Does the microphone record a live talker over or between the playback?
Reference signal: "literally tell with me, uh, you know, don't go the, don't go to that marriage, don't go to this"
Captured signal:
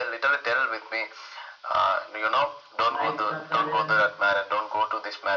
Yes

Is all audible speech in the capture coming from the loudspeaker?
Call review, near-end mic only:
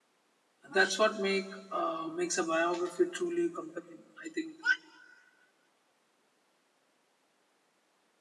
No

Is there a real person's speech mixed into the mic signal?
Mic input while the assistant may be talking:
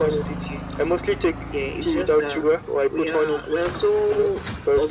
No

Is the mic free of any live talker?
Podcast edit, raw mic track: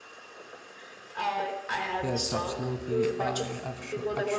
No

